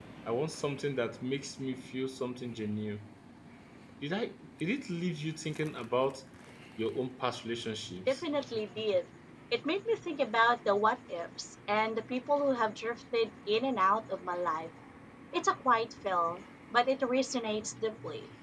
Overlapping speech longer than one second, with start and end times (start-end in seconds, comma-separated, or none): none